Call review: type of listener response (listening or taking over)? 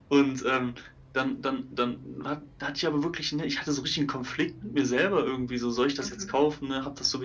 listening